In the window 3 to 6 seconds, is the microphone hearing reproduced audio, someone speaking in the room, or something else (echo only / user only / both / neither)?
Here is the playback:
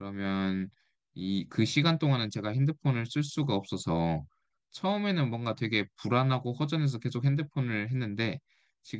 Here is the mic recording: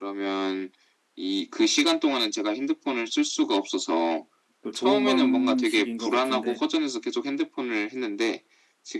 both